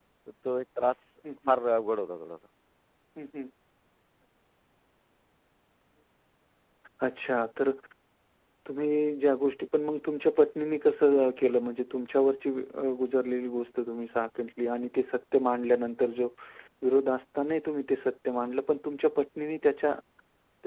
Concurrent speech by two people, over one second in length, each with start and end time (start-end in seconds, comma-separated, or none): none